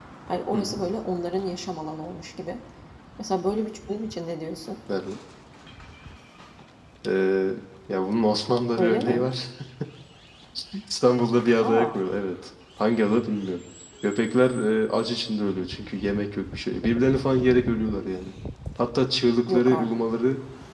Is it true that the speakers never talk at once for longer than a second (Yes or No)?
Yes